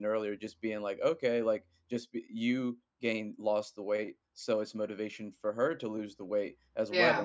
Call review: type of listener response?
listening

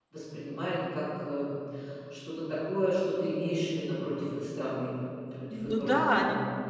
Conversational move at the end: taking over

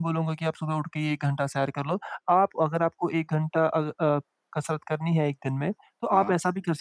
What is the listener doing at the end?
listening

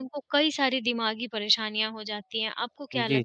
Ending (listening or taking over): taking over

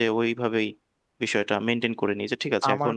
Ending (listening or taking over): taking over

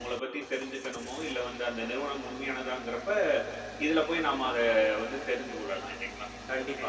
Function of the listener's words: taking over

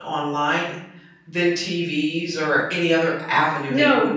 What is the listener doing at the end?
taking over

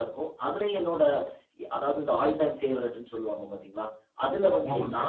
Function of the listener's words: listening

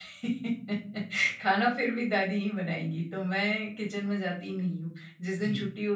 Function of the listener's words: listening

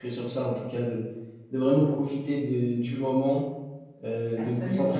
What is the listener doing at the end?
listening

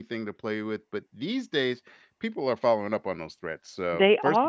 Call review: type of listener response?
listening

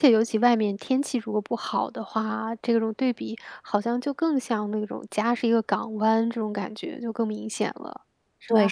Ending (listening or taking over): taking over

